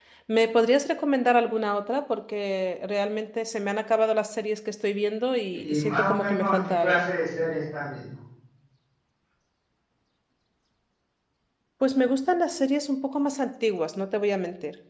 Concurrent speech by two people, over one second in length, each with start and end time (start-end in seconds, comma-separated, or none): 5.5-7.0